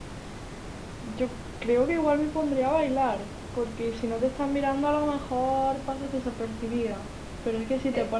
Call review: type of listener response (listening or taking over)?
listening